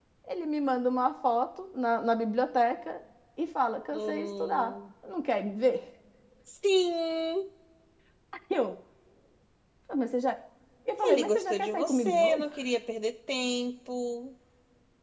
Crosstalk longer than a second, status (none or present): present